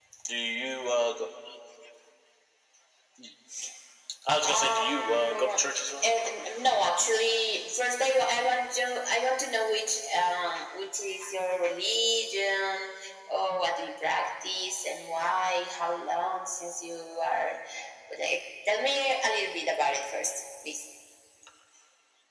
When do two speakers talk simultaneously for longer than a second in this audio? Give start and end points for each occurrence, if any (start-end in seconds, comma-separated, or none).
4.4-5.6